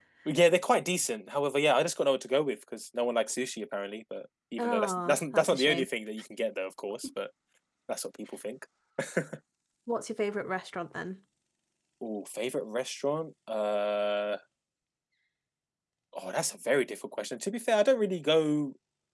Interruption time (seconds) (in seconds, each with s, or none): 4.6 s